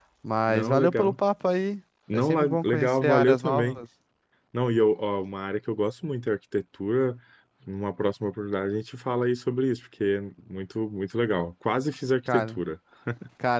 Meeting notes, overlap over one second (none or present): present